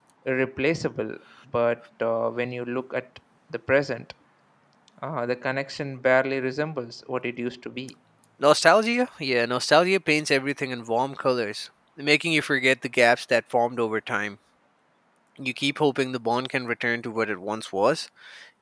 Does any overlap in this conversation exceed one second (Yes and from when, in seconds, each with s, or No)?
No